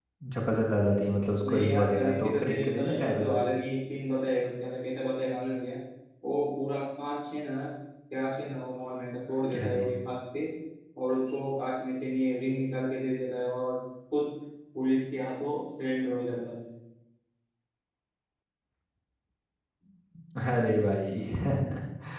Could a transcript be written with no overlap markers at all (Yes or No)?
No